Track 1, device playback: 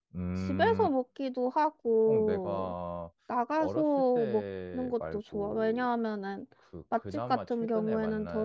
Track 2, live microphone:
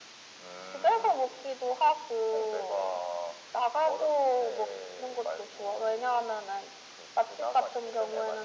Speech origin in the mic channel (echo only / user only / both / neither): echo only